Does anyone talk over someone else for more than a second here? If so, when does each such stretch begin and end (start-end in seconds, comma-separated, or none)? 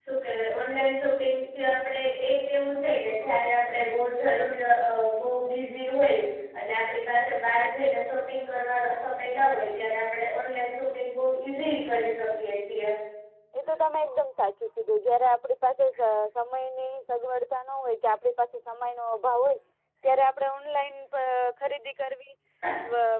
none